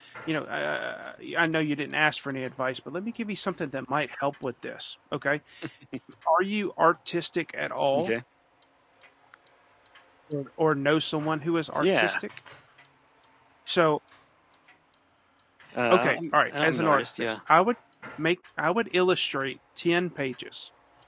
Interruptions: present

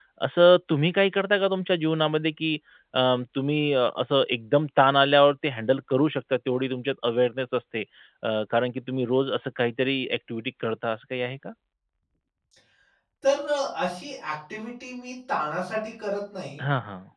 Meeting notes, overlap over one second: none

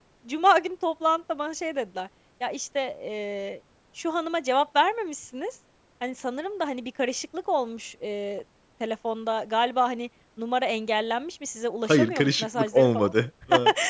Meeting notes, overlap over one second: present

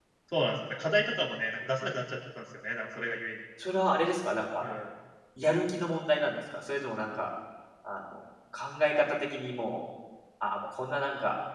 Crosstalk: none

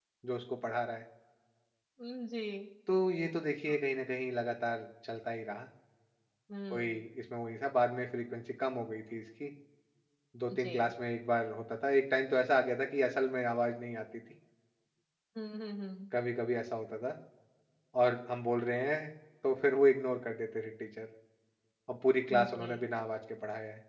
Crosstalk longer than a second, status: none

